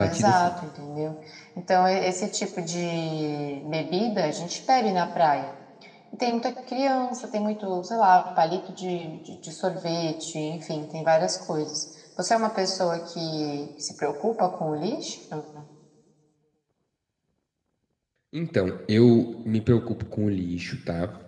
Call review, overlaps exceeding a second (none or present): none